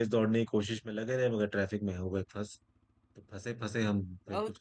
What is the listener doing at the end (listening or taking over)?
taking over